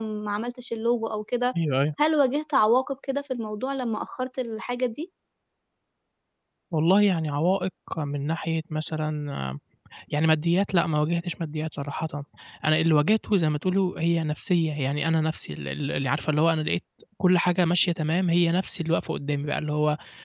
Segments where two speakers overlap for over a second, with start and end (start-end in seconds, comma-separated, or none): none